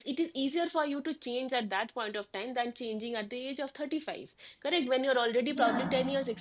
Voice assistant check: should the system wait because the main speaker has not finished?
Yes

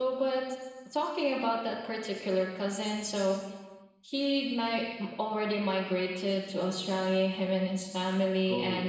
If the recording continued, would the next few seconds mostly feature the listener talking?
No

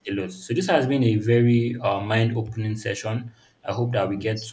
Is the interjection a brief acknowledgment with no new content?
Yes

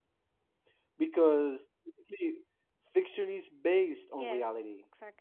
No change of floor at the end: No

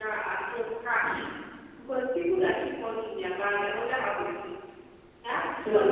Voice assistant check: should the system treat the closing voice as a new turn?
No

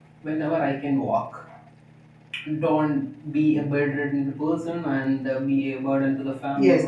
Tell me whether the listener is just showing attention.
No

